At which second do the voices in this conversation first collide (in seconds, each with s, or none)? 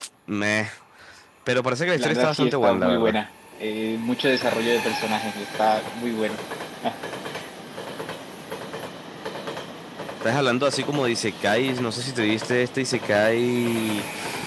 1.9 s